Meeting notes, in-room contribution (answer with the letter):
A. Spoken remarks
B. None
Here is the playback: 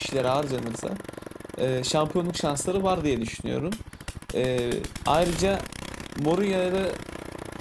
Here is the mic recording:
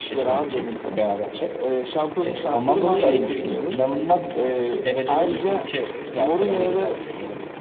A